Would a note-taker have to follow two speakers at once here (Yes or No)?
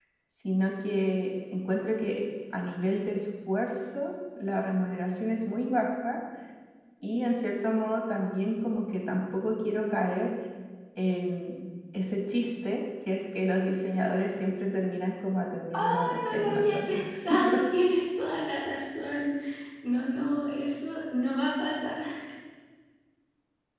Yes